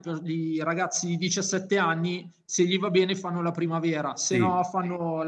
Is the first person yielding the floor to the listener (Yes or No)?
No